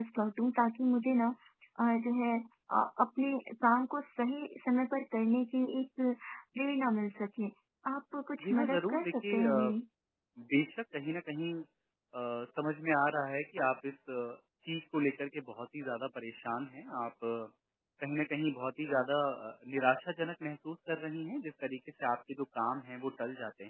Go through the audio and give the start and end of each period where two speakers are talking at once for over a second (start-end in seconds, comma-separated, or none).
8.4-9.7